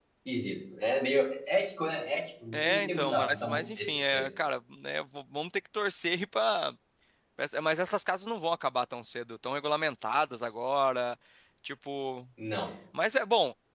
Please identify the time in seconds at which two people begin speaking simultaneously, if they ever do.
3 s

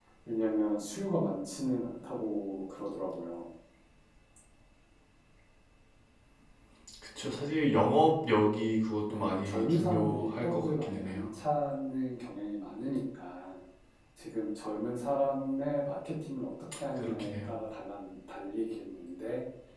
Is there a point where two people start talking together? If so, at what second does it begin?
9 s

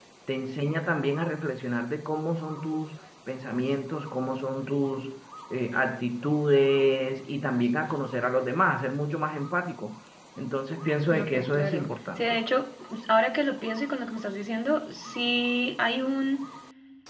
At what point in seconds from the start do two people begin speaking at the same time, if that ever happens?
11 s

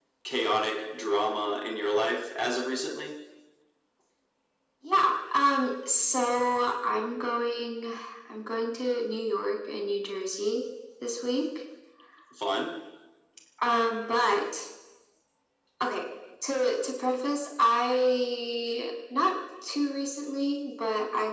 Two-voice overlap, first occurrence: none

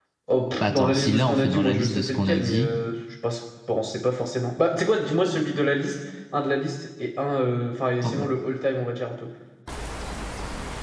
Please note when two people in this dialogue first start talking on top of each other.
1 s

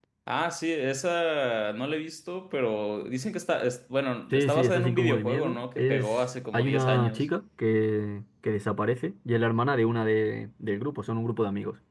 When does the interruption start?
4 s

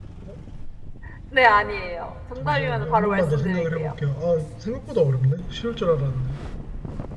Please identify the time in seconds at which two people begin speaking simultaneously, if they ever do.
2 s

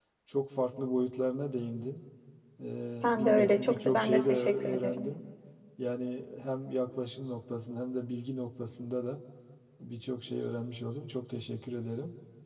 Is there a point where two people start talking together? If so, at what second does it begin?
3 s

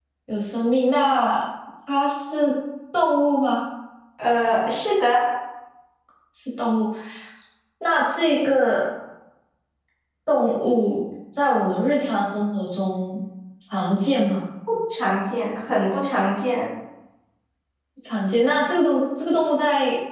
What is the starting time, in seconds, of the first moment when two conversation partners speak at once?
none

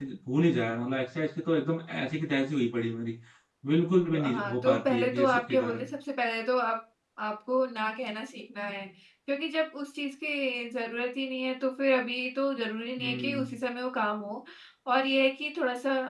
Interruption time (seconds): 4 s

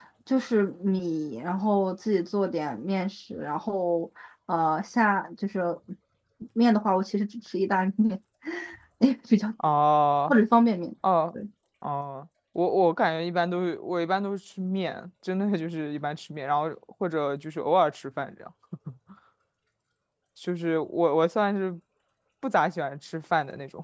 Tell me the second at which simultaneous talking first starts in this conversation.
none

